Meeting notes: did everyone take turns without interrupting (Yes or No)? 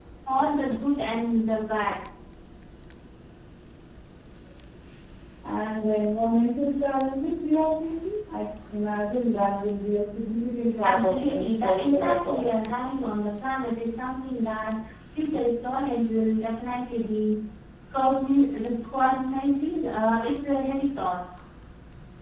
No